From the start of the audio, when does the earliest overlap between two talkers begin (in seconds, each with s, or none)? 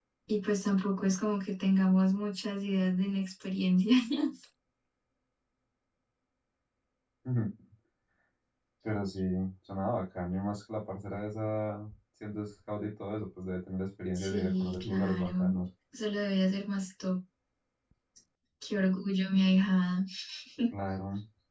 14.2 s